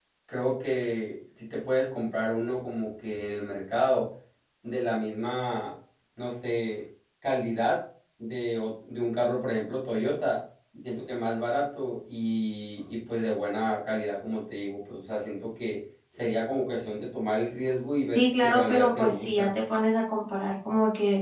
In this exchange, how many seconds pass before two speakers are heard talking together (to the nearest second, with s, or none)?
18 s